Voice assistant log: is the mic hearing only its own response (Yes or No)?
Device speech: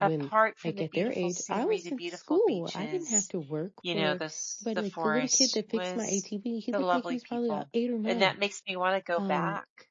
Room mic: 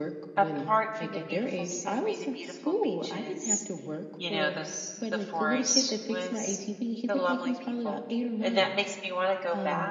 Yes